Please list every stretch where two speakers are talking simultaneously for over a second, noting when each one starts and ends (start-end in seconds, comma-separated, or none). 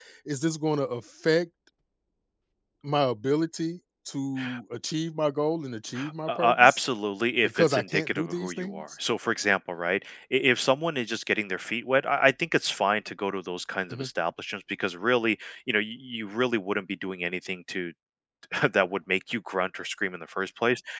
7.4-8.8